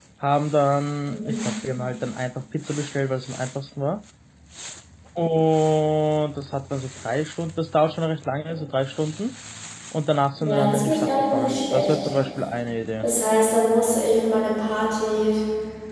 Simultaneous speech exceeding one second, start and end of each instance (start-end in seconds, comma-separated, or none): 10.4-12.1